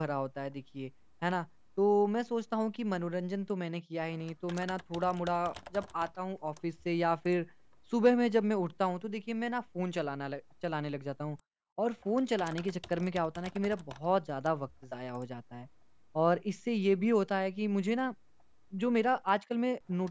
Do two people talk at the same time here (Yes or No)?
No